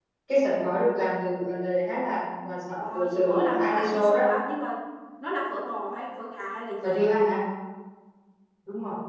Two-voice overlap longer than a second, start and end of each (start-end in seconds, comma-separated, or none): 2.8-4.2